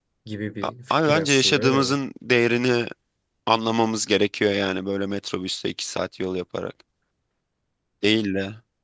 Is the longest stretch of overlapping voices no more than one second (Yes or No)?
No